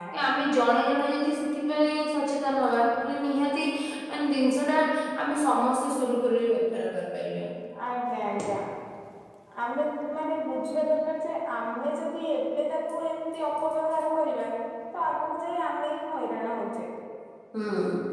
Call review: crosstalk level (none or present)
none